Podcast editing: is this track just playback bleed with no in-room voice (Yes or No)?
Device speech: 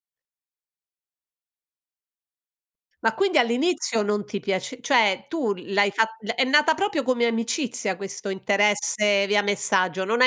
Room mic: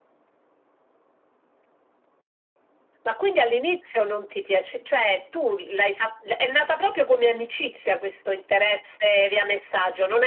Yes